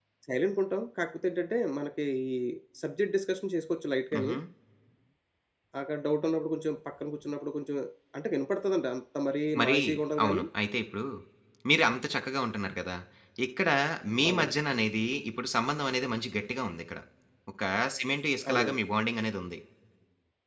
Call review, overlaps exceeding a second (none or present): none